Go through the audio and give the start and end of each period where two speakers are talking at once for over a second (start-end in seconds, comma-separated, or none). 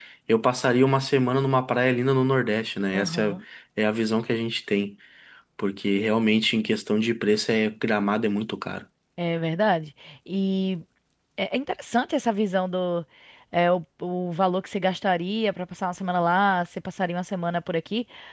none